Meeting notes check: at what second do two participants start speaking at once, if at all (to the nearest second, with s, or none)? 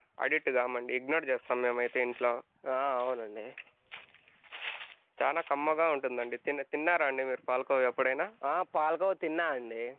none